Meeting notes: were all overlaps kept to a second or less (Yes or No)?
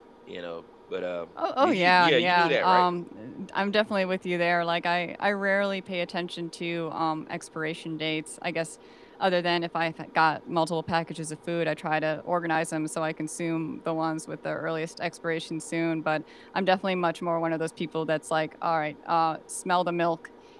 No